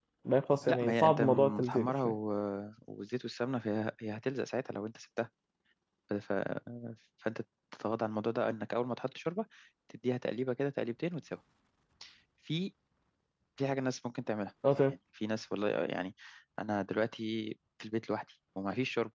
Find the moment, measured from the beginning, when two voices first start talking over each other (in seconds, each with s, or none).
0.7 s